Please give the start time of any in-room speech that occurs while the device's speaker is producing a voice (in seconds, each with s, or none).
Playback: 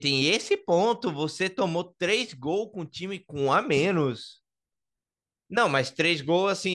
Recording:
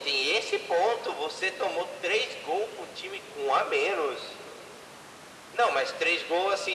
none